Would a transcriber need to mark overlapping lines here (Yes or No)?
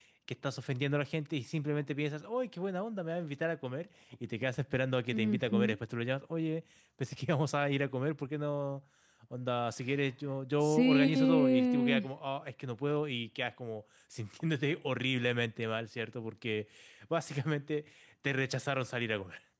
Yes